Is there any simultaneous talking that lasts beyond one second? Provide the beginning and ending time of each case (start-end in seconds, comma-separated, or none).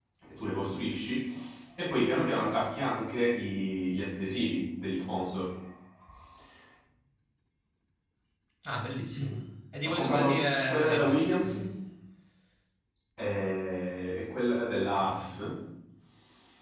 9.8-11.7